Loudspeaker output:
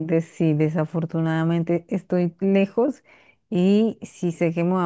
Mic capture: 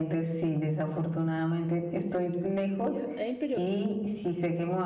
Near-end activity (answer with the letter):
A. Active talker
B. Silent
A